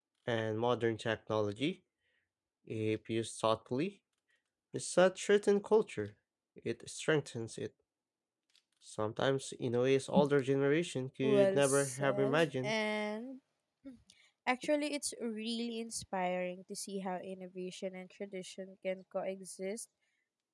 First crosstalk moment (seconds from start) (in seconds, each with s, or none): 11.2 s